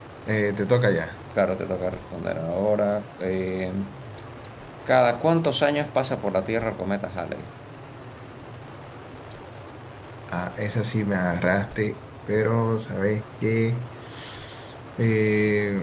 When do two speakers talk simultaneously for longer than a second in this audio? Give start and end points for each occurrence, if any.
none

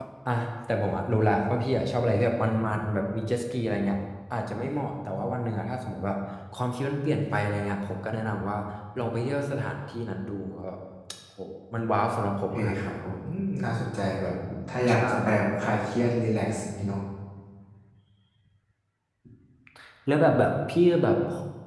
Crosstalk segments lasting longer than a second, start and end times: none

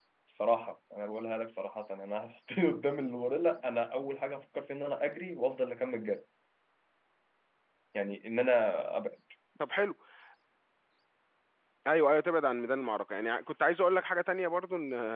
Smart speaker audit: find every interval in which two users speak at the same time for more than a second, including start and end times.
none

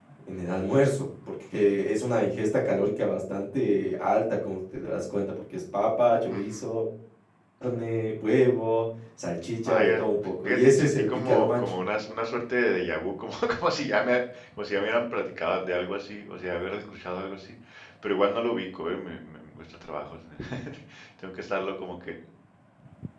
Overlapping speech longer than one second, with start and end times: 9.7-11.7

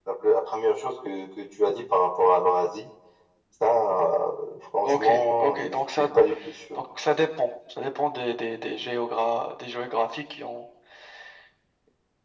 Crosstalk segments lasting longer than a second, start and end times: 4.8-6.1

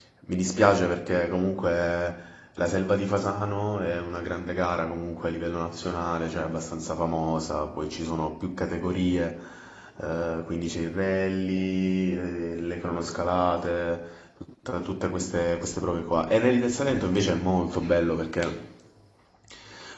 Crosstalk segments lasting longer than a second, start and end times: none

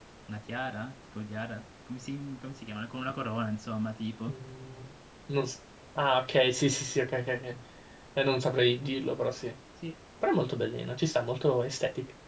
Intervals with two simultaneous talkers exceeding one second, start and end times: none

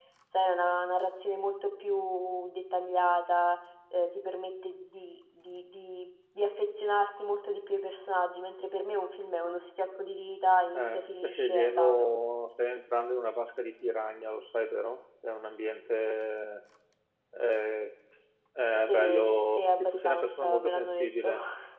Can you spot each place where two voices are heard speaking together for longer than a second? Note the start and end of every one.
10.7-12.1, 18.9-21.3

